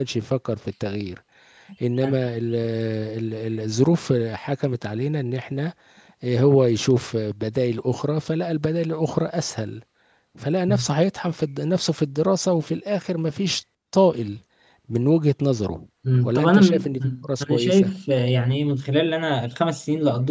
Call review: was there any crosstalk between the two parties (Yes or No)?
Yes